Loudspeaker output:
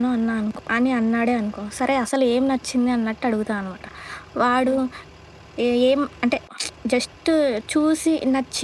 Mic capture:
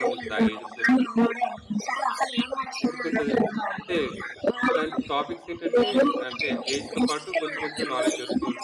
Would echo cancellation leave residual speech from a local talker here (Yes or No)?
Yes